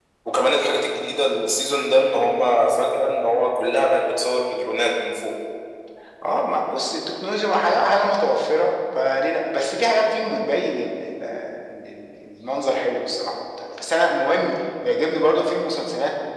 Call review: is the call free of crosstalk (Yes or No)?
Yes